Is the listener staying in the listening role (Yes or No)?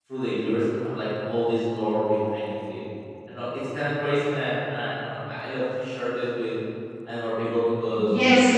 No